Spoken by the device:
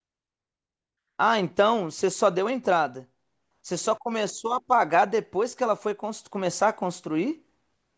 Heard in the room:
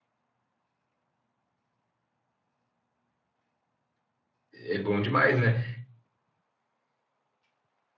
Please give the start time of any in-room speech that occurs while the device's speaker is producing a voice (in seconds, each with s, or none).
4.5 s